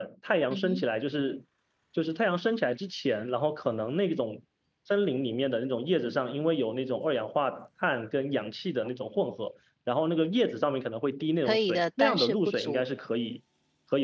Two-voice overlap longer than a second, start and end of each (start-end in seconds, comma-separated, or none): 11.4-12.8